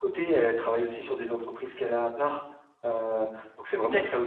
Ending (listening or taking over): taking over